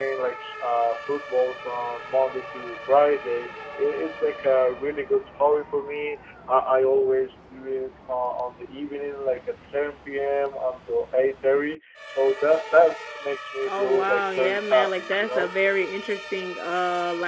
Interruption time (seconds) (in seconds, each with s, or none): 13.6 s